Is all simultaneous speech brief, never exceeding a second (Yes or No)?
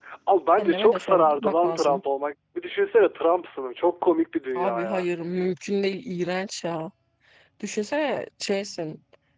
No